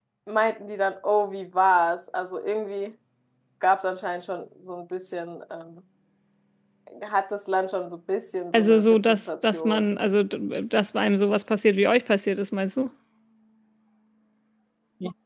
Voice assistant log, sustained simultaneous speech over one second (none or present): present